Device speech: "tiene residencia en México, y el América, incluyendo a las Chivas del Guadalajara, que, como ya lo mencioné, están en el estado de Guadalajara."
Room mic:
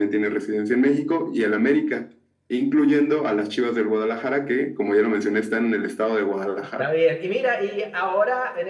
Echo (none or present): present